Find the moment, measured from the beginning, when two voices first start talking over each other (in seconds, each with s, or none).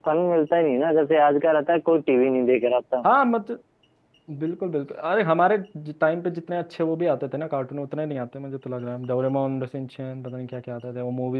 none